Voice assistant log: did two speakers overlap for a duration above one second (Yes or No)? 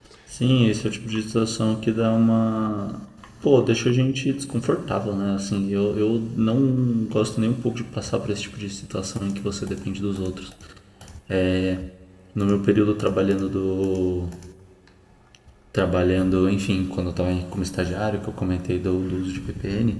No